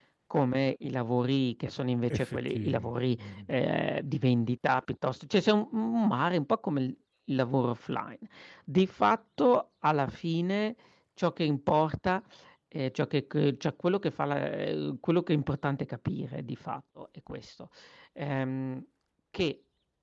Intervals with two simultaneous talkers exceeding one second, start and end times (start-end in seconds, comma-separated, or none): 2.1-3.5